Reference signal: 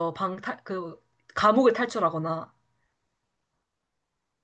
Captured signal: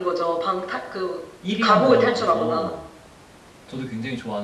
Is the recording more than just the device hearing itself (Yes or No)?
Yes